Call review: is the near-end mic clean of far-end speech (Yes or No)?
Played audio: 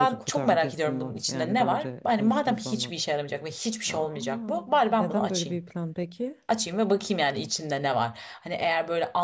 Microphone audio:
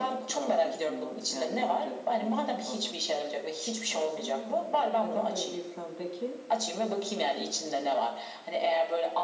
No